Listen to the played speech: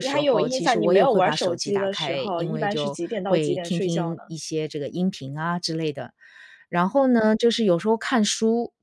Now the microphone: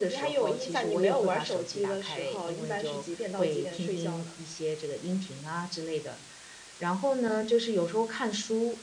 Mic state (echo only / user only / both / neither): echo only